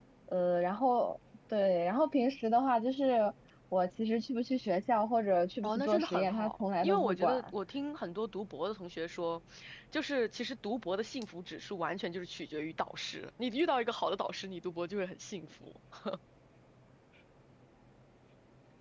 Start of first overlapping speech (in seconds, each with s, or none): 5.6 s